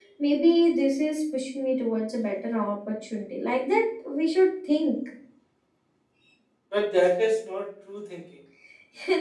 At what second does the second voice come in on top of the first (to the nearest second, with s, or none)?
none